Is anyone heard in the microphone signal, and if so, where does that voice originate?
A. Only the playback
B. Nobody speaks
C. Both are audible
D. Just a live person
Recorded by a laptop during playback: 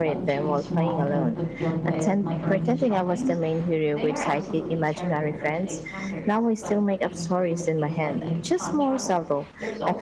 C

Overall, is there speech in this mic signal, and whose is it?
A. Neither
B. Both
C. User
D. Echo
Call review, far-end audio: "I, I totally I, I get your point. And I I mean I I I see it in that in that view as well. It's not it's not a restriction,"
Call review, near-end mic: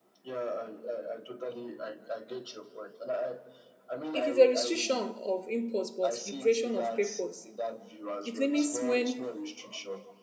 B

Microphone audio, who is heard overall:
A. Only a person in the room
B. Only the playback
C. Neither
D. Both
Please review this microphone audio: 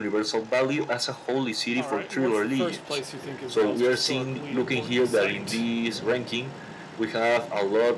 D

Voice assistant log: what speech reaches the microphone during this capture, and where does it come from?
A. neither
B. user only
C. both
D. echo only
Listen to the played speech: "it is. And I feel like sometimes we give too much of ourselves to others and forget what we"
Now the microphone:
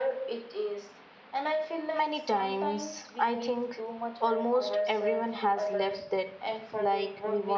C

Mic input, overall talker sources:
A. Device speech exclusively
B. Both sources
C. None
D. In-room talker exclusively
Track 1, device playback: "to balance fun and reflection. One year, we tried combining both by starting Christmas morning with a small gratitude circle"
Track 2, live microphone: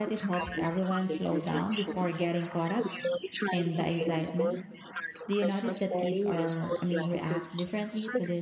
B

